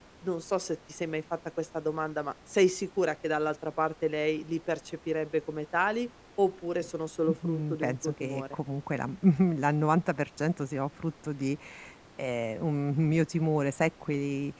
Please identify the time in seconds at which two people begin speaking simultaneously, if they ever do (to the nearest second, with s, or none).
7 s